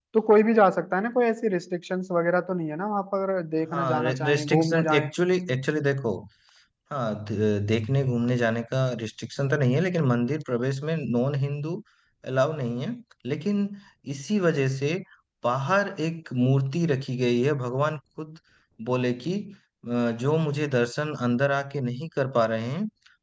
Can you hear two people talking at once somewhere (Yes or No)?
Yes